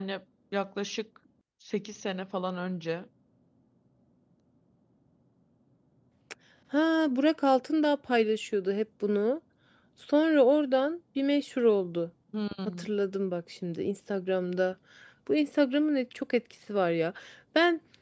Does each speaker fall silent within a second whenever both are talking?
Yes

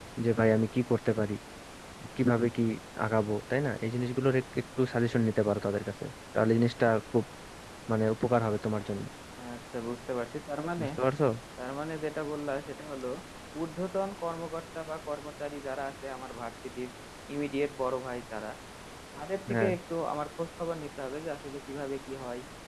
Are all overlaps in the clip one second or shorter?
Yes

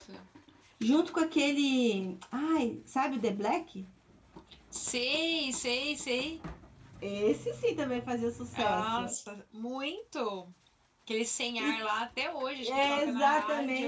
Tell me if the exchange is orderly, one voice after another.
No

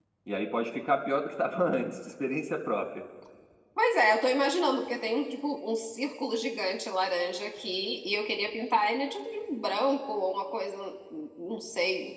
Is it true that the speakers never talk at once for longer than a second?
Yes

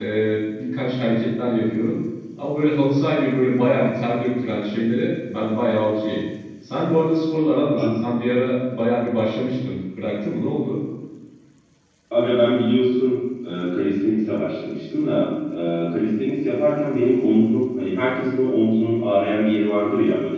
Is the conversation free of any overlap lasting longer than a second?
Yes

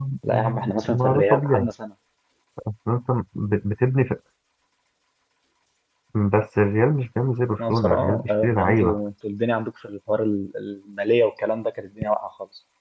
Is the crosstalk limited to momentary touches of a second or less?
No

